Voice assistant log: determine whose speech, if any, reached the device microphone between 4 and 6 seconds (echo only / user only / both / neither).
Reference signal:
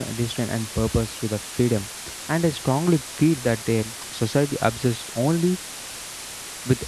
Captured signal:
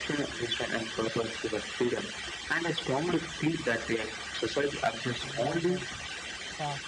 both